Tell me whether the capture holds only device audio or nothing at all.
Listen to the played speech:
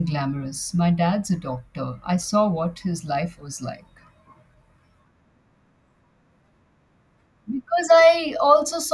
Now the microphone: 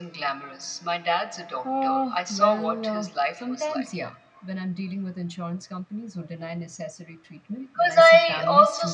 No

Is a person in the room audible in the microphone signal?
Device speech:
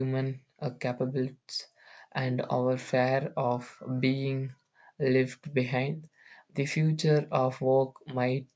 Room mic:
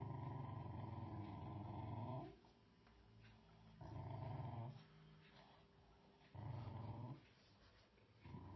No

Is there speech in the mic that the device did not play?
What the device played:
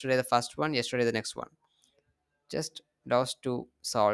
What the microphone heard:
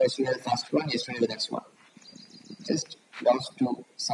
No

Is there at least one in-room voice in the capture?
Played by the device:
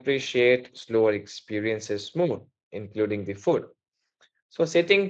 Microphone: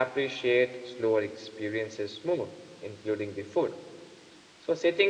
No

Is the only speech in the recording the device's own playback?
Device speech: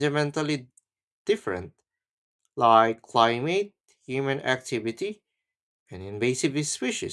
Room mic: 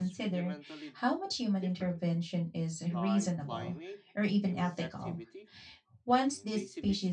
No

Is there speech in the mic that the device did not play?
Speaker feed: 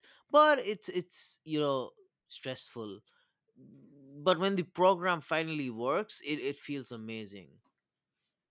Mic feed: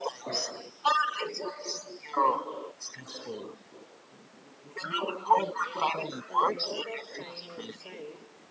Yes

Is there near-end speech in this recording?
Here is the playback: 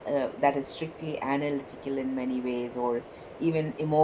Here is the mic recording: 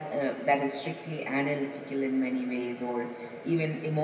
No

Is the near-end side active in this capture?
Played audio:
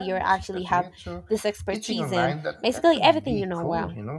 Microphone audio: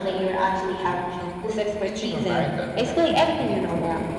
No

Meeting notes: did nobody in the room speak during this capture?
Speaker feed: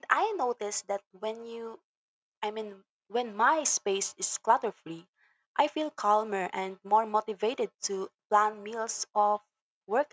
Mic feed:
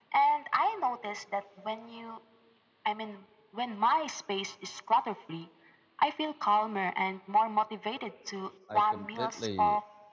No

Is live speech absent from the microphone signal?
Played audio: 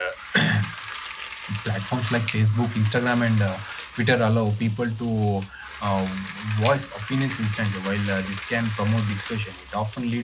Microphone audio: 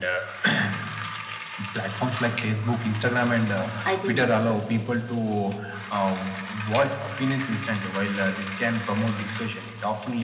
No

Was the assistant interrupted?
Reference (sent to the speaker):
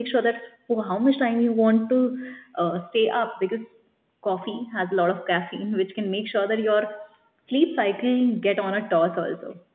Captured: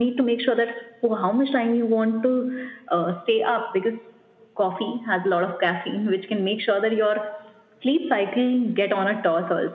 No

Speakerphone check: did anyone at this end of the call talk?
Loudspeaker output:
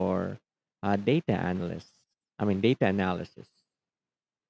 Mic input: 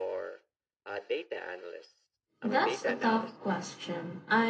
Yes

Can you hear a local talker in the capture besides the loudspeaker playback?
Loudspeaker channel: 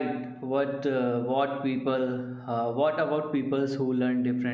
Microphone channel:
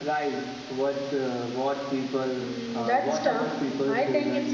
Yes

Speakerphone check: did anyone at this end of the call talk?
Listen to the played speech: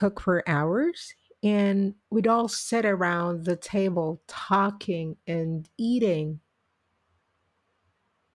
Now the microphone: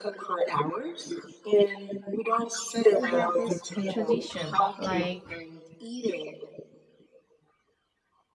Yes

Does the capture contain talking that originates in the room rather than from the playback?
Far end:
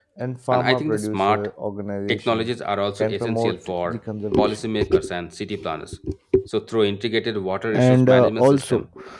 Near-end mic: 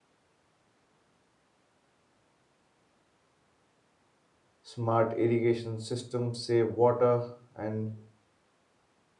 Yes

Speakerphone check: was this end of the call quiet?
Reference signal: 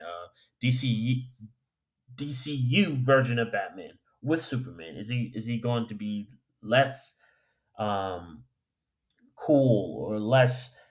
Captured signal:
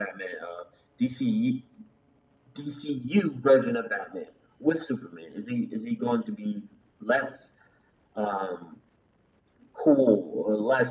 Yes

